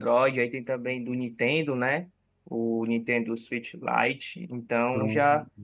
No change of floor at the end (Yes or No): Yes